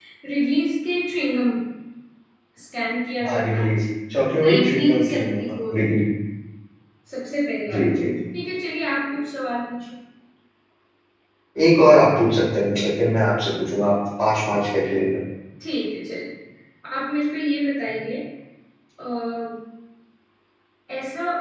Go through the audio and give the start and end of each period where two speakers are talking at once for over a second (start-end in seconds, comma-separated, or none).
4.4-6.0